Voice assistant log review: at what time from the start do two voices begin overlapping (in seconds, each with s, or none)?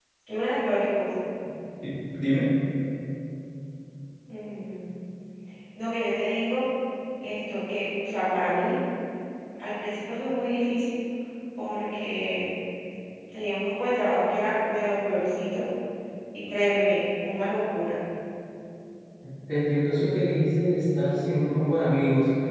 none